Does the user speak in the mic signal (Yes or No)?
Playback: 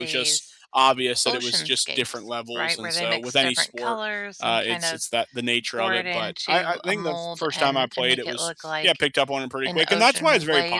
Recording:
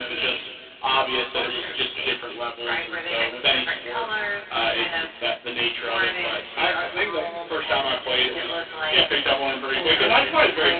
No